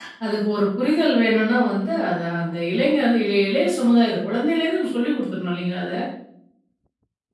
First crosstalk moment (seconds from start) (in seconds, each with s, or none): none